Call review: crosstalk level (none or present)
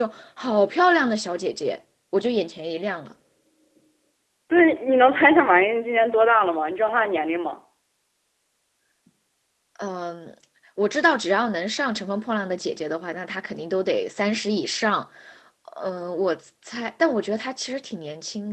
none